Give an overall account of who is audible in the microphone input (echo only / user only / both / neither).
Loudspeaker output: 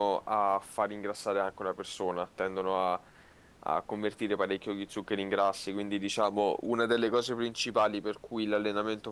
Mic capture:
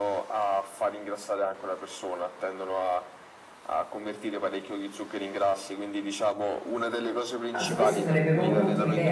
both